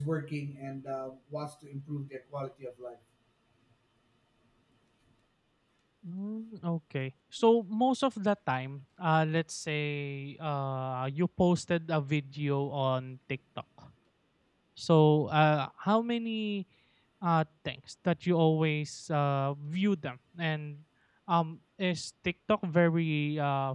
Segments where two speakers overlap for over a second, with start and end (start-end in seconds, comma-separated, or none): none